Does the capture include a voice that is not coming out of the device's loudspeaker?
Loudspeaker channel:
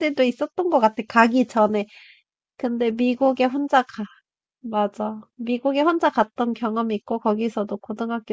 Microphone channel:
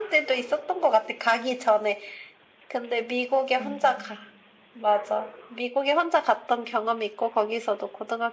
Yes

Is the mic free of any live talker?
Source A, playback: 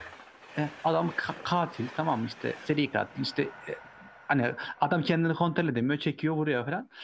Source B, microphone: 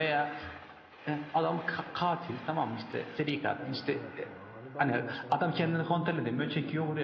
No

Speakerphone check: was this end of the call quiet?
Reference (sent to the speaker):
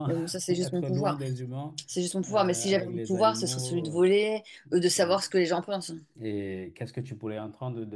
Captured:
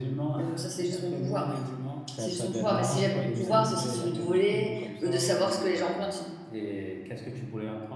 No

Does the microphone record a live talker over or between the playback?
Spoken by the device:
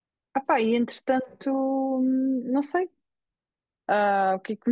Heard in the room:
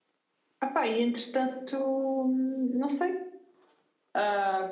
No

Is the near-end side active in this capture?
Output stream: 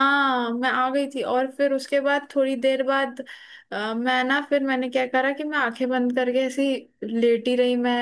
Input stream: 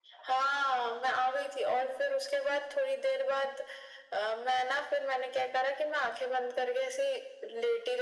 No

